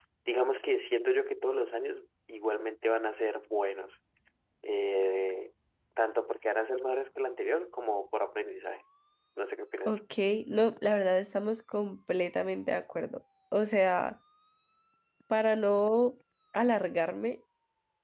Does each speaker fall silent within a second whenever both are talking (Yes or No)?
Yes